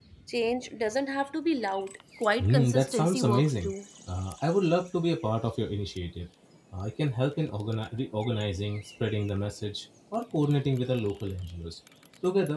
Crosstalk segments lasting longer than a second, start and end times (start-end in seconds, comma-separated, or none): 2.4-3.7